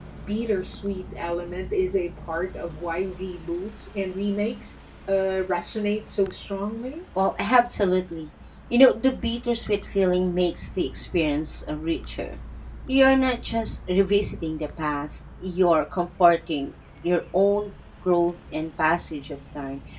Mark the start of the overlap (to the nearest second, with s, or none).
none